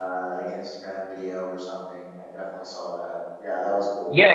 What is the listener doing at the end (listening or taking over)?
taking over